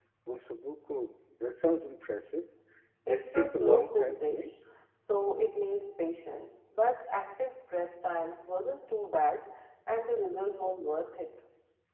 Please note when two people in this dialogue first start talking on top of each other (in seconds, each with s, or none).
3.1 s